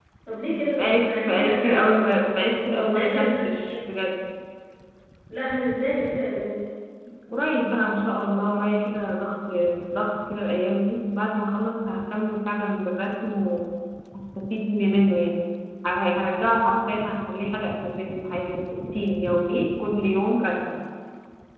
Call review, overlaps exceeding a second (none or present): present